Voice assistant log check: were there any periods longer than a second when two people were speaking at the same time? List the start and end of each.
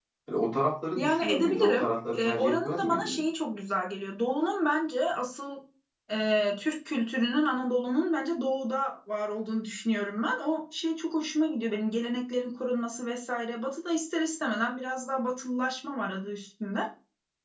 0.9-3.2

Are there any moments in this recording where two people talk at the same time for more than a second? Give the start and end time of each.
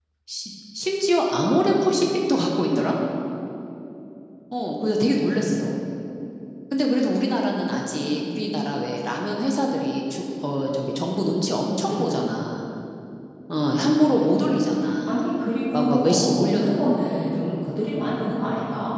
15.7-17.3

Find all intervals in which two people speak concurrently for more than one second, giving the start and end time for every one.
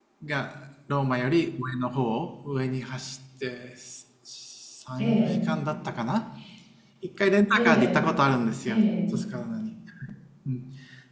none

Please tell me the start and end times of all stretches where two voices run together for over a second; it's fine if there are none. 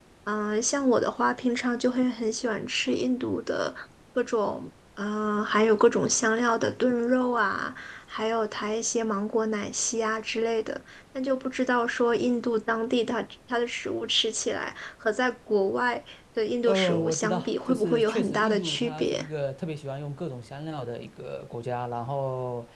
16.7-19.2

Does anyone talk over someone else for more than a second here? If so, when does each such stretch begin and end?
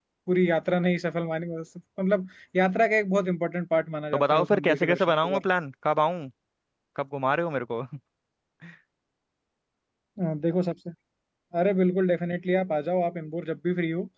4.1-5.4

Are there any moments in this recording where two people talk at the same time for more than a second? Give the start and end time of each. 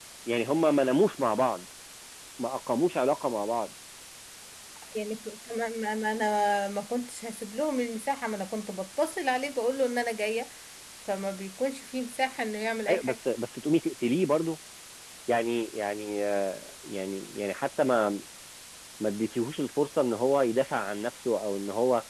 none

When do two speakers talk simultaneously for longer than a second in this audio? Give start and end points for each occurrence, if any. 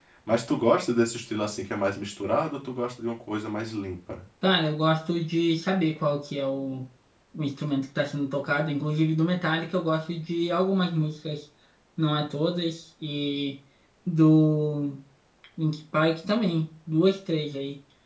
none

